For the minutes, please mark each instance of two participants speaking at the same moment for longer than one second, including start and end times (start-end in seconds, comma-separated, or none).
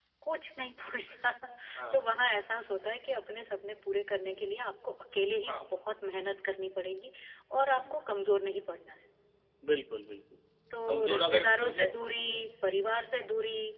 10.9-12.4